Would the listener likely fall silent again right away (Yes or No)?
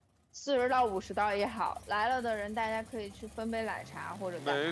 No